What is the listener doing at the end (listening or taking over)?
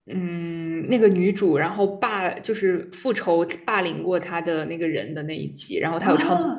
taking over